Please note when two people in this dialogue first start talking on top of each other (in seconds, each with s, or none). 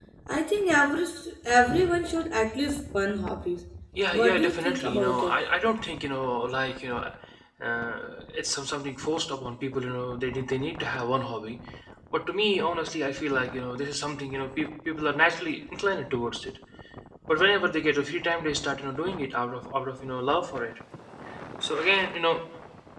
4.1 s